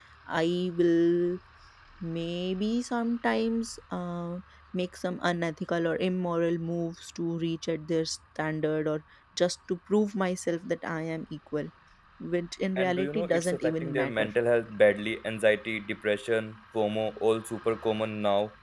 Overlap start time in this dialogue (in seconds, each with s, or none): 12.8 s